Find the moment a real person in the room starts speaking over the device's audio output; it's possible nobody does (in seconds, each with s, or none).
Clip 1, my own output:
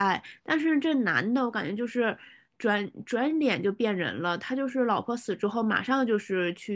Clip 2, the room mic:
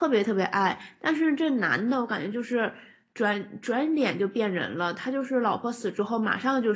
none